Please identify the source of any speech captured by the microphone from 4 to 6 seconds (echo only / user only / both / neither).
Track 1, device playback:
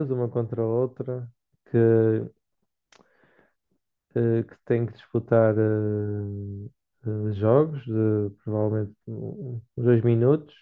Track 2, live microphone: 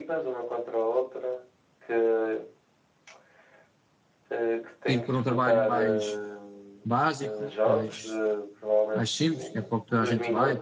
both